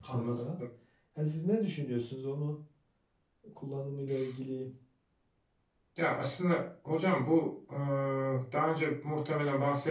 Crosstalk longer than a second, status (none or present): none